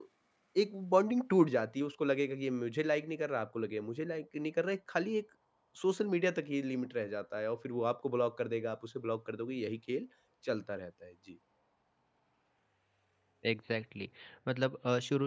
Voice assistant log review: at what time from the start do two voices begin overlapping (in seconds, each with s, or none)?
none